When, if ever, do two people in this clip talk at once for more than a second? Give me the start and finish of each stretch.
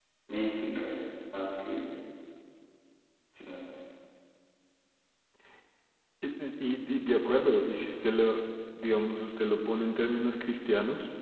none

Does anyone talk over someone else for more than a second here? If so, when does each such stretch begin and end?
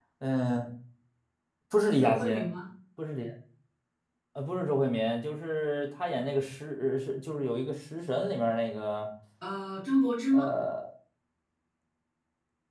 none

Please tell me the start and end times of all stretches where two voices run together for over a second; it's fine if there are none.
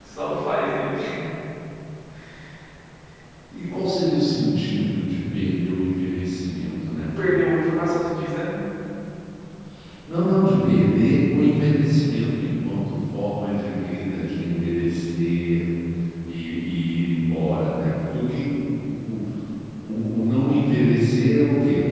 none

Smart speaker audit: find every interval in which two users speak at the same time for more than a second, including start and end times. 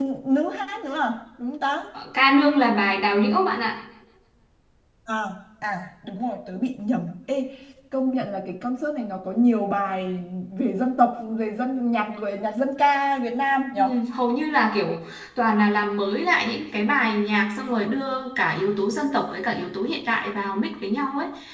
none

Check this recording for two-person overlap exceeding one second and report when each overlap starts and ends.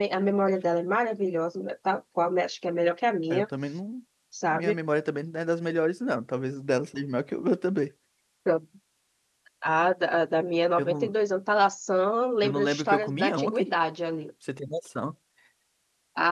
12.4-13.7

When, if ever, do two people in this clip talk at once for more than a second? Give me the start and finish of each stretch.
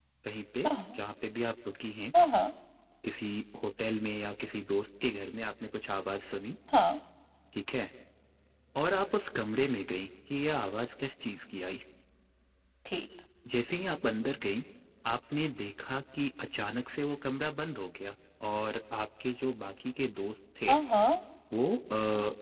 none

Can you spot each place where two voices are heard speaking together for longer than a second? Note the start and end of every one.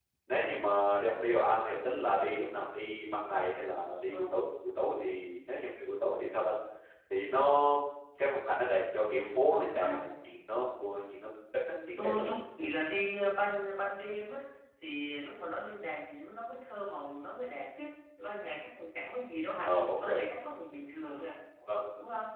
none

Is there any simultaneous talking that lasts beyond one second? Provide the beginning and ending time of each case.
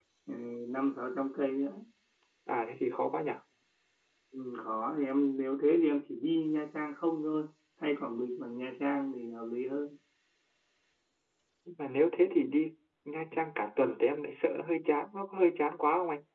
none

